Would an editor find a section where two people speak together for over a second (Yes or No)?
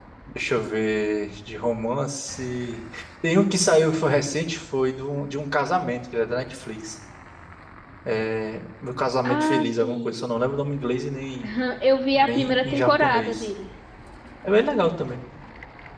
Yes